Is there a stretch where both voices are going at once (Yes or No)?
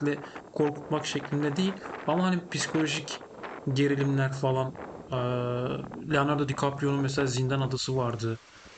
No